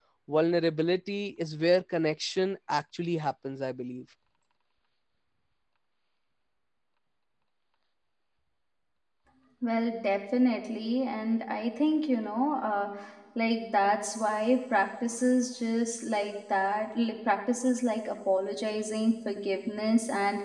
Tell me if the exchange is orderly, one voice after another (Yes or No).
Yes